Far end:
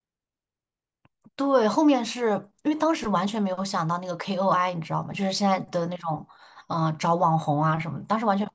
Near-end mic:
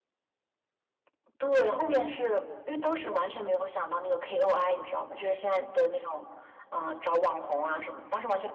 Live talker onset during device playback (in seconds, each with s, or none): none